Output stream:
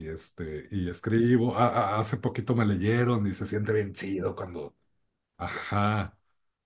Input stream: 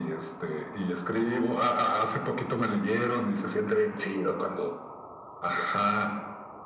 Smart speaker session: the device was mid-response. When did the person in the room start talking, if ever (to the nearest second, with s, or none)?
none